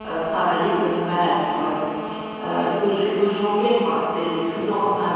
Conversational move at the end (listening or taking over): listening